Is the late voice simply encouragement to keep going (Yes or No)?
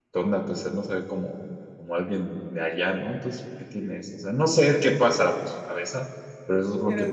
No